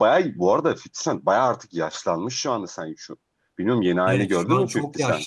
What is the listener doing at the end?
taking over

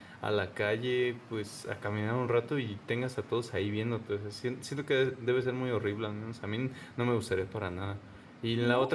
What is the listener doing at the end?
listening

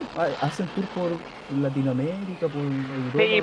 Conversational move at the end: taking over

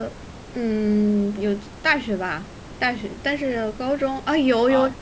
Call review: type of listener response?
taking over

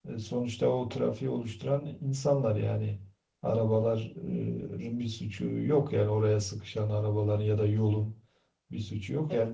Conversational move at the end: listening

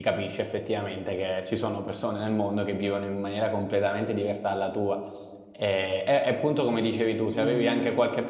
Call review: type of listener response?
listening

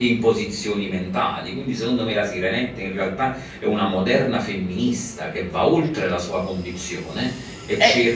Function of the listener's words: listening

